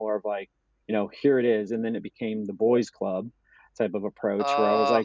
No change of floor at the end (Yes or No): Yes